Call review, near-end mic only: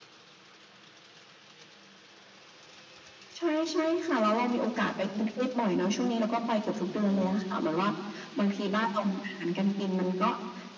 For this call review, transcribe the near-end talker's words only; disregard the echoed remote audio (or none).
none